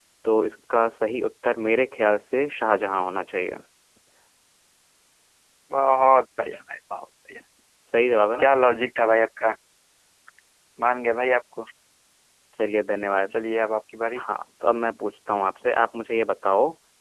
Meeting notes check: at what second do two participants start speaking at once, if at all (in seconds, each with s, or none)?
none